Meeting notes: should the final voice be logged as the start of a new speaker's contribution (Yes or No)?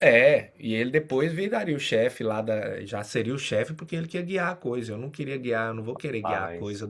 No